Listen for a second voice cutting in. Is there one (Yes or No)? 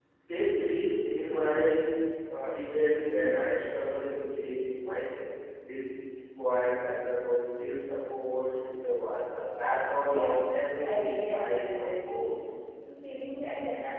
Yes